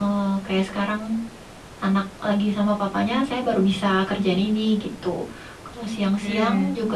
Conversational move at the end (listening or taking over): listening